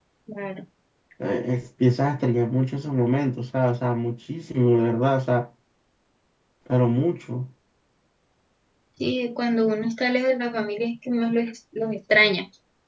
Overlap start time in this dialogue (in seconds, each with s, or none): none